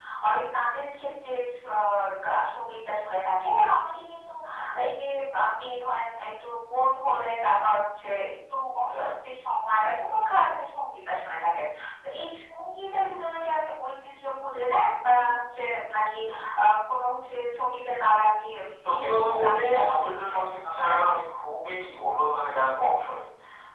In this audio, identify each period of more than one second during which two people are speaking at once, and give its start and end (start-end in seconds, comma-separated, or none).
18.9-21.0